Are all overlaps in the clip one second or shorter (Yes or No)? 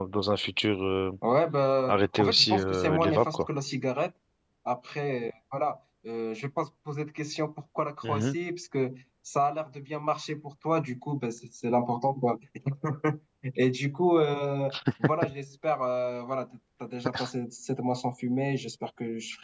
No